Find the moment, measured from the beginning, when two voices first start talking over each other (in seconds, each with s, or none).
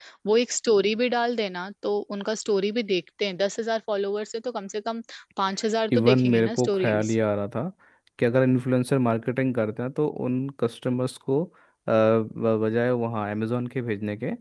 5.9 s